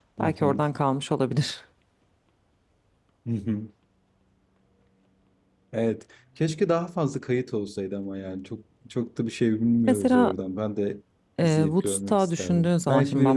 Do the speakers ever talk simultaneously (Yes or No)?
Yes